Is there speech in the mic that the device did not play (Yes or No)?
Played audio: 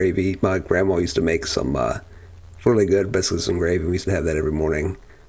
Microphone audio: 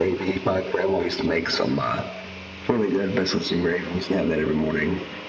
No